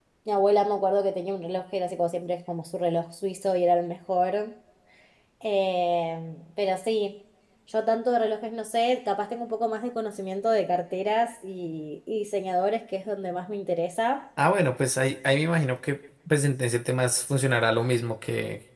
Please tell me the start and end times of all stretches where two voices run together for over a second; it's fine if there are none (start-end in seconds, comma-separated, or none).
none